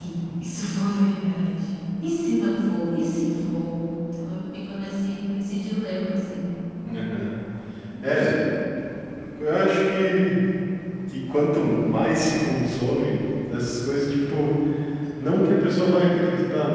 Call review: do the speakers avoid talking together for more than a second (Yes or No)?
Yes